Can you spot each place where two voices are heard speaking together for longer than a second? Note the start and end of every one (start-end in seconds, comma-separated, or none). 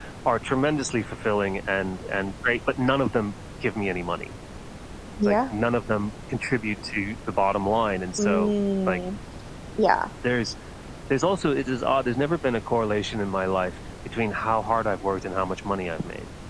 none